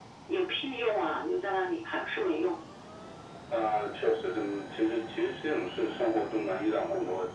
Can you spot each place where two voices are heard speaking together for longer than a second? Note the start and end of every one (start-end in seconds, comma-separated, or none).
none